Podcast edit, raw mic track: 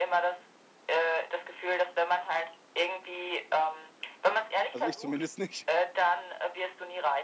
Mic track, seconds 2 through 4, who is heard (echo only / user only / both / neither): echo only